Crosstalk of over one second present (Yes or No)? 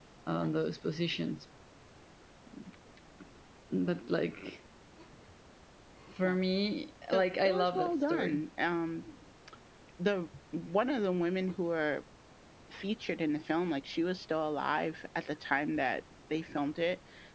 Yes